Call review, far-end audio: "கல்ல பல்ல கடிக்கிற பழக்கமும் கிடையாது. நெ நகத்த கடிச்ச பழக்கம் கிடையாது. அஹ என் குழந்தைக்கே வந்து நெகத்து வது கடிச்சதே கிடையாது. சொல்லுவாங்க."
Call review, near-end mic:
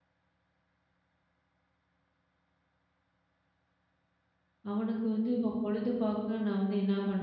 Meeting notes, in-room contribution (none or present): present